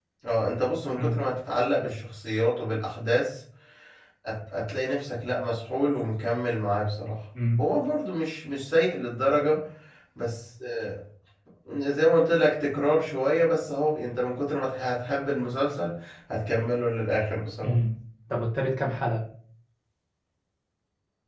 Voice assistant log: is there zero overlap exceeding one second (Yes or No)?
Yes